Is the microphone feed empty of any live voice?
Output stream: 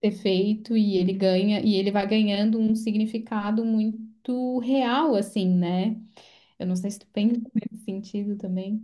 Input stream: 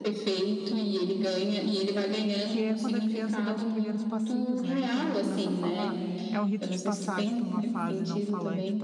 No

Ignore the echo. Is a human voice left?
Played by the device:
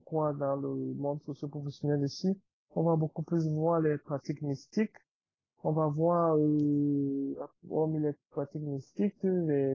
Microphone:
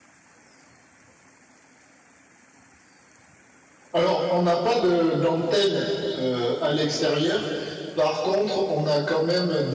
Yes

